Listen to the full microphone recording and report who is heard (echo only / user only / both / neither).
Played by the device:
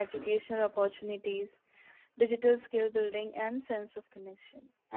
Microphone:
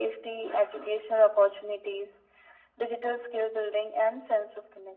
echo only